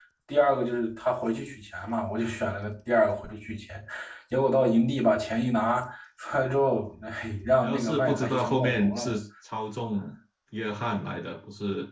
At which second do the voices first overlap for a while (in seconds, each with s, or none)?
7.6 s